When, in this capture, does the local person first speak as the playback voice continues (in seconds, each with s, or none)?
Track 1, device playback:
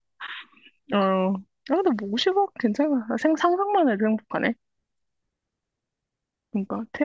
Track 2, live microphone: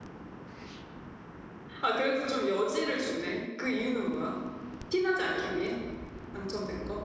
1.8 s